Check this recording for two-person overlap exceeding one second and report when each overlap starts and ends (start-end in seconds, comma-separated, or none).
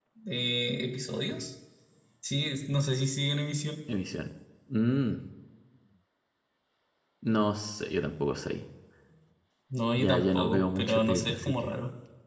10.0-11.7